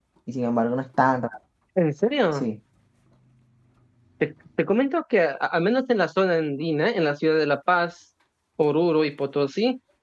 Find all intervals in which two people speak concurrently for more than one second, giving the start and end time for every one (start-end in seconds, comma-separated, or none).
none